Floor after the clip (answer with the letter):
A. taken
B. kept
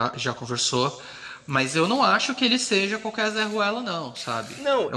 A